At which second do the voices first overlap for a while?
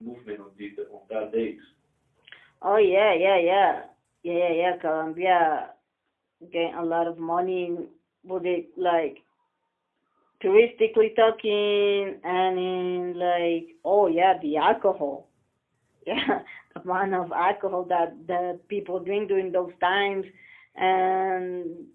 none

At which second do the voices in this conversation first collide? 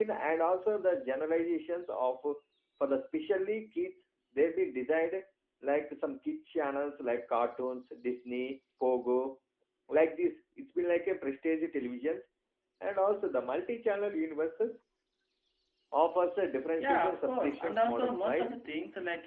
16.8 s

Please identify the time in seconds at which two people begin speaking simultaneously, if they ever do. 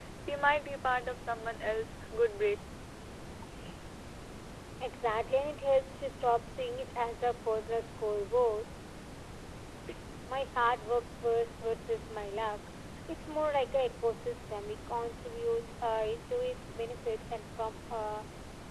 none

